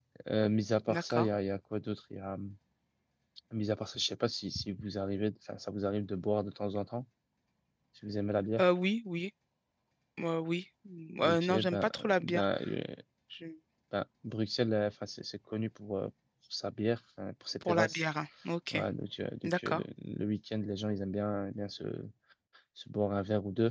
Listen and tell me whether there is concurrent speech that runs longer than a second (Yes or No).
Yes